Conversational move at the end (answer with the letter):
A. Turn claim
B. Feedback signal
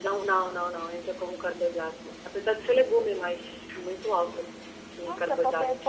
A